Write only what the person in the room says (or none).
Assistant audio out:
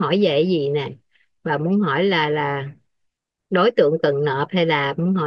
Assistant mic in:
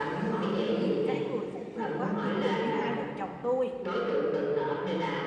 thì cái người phụ thuộc á, thì ví dụ như hai vợ chồng tôi